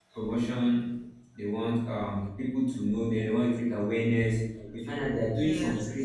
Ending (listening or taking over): listening